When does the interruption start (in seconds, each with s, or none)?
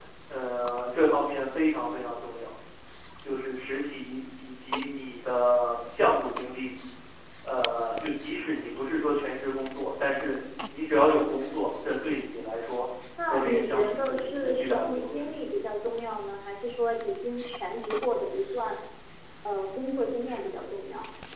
13.2 s